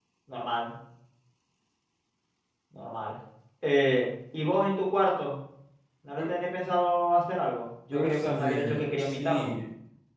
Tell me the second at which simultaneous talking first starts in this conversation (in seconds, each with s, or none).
7.9 s